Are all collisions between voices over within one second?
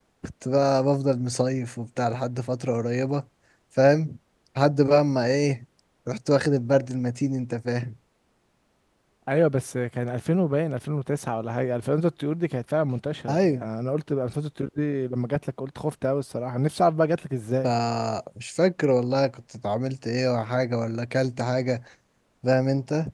Yes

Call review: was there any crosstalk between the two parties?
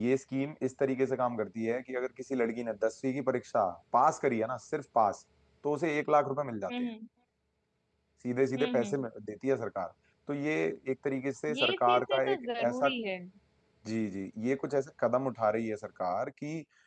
Yes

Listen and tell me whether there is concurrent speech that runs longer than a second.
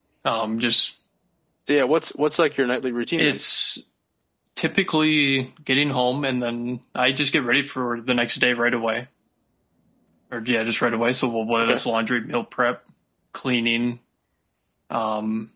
No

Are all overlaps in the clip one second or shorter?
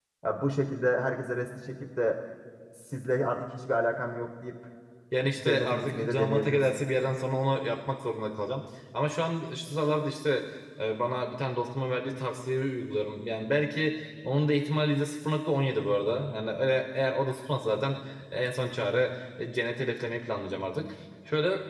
No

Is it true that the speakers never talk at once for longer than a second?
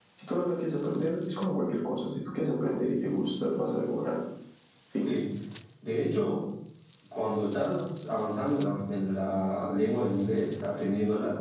Yes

